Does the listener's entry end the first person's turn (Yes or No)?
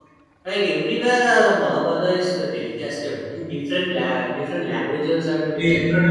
Yes